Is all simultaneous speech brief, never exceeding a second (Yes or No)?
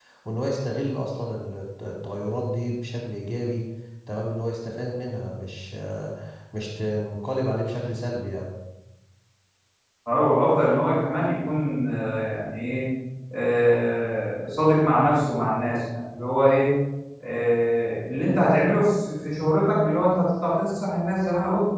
Yes